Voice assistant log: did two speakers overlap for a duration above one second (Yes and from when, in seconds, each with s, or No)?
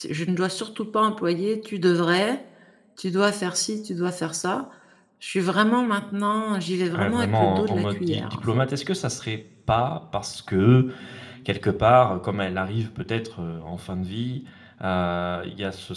Yes, from 6.9 s